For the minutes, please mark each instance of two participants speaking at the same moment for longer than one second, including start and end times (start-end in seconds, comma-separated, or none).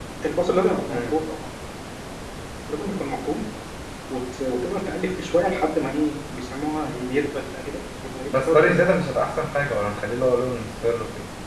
none